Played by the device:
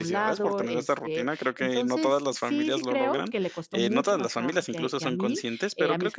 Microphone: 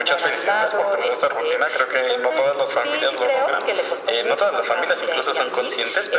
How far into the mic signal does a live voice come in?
none

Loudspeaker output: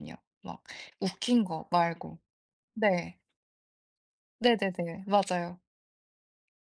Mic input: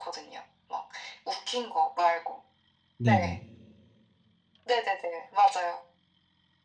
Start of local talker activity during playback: 3 s

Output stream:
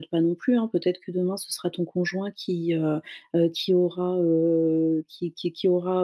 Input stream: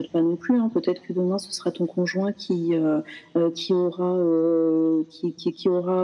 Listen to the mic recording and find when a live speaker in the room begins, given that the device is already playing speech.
none

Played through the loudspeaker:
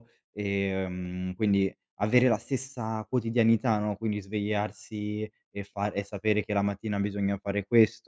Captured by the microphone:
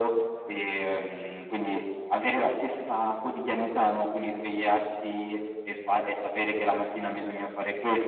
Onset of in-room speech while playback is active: none

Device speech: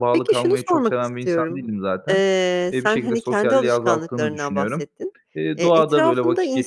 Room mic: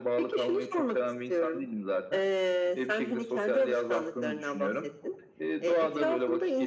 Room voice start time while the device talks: none

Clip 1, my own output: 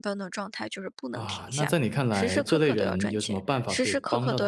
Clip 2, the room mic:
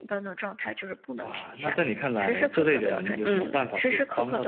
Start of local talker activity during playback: 3 s

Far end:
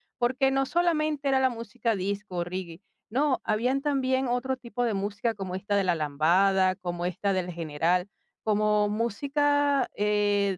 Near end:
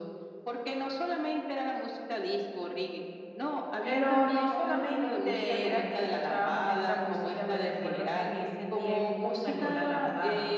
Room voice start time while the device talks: 4 s

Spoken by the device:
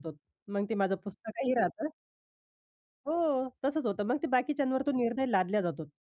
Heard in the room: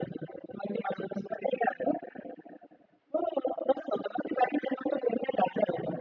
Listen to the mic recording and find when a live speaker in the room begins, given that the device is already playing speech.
none

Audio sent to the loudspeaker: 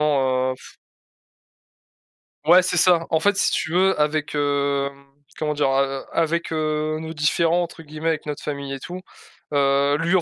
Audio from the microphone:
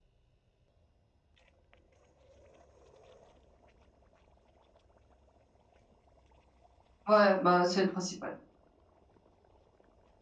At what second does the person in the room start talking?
7 s

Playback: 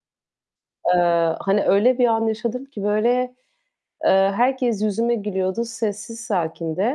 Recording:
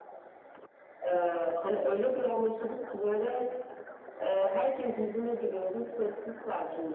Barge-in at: none

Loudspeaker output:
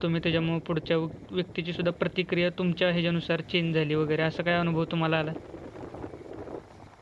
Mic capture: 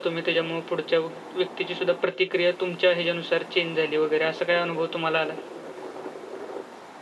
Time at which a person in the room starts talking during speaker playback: none

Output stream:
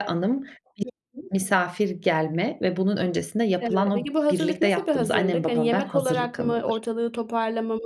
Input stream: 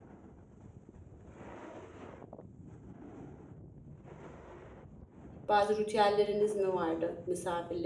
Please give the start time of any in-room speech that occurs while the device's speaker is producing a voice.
5 s

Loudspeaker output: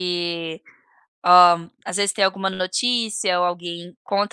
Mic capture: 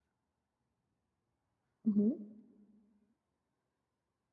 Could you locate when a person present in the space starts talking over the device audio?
2 s

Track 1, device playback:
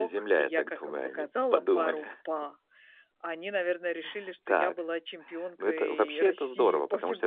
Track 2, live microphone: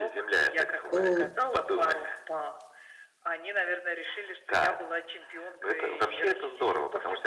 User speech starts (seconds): 1 s

